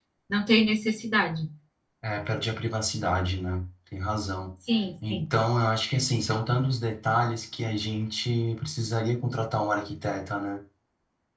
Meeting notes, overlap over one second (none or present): none